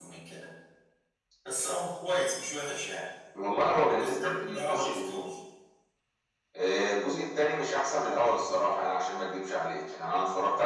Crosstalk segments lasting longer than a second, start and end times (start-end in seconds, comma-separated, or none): 3.9-5.2